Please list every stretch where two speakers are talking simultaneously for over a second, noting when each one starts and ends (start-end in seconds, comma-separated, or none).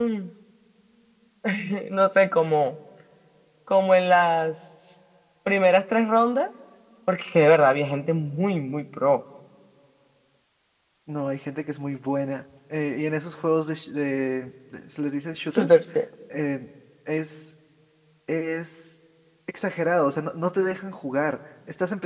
none